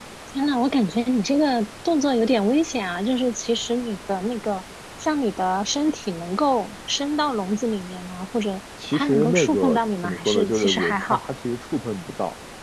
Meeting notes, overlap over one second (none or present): present